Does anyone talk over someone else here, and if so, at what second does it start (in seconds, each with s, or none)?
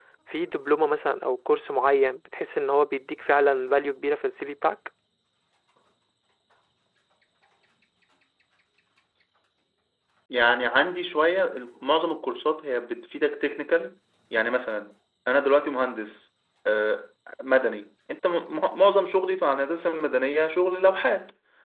none